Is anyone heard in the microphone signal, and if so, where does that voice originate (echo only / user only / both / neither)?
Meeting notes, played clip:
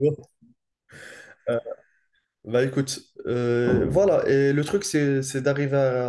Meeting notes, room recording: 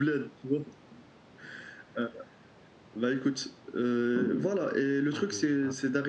both